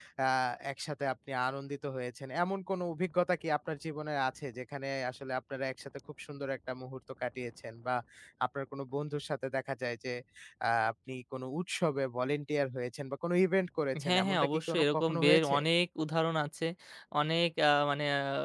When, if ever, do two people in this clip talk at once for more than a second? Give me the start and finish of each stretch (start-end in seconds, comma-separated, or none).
14.0-15.6